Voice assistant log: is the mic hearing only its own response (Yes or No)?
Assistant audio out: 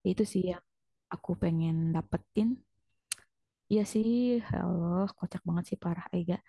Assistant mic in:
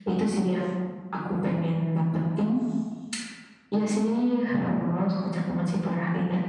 Yes